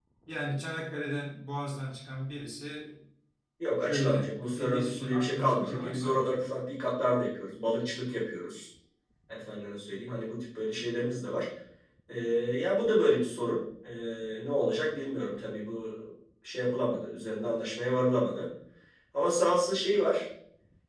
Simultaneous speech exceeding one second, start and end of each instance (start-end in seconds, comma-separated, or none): 3.8-6.4